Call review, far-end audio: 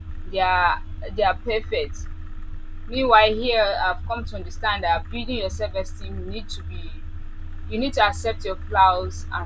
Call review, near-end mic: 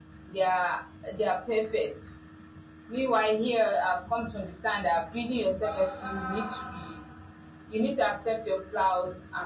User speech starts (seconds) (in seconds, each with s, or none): 5.6 s